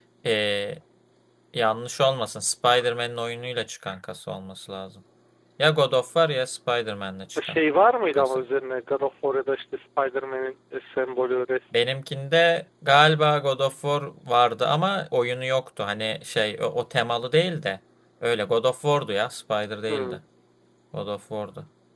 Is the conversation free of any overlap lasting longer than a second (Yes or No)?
Yes